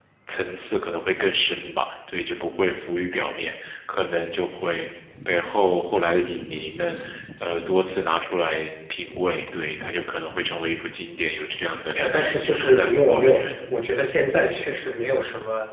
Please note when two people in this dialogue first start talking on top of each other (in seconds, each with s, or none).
12.0 s